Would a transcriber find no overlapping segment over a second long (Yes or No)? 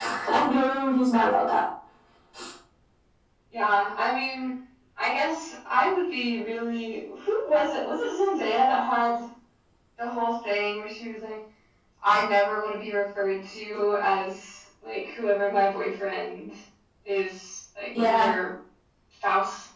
Yes